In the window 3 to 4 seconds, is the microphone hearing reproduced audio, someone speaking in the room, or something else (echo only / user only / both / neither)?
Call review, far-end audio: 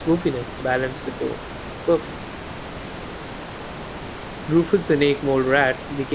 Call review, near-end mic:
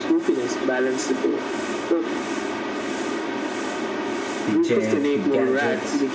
neither